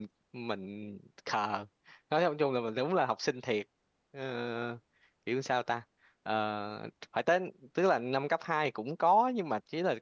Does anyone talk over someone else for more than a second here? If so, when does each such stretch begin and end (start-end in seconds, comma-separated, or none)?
none